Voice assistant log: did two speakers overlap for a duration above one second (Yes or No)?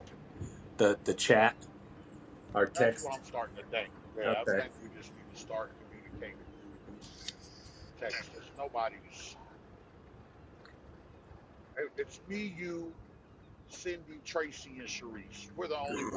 No